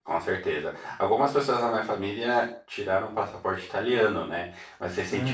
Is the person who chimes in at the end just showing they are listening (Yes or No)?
Yes